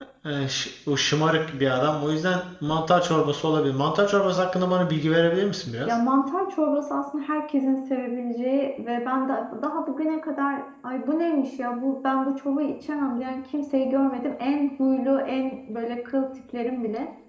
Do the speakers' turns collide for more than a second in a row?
No

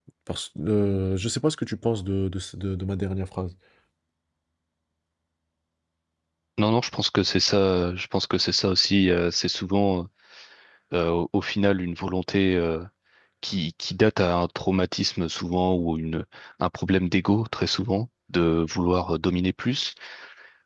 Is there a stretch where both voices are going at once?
No

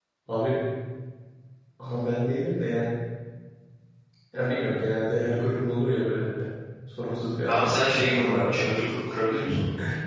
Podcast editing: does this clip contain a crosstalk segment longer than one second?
Yes, from 7.5 s

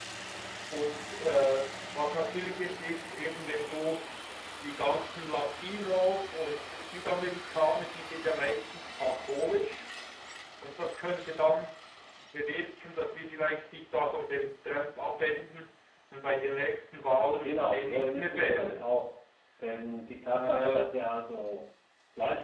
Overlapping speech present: Yes, from 17.4 s

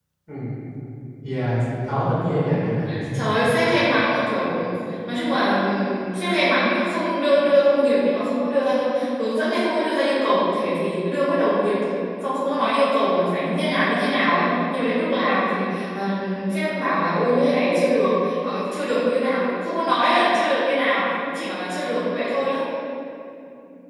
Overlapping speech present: No

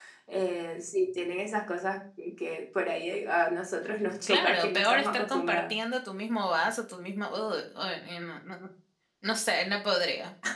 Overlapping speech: Yes, from 4.3 s

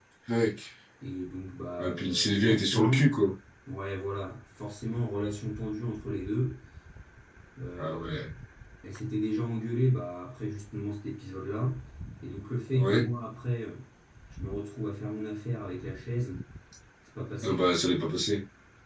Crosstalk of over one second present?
Yes, from 1.8 s

